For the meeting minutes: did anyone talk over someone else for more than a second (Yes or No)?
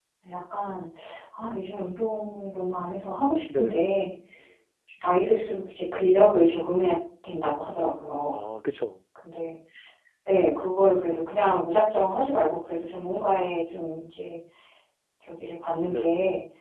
No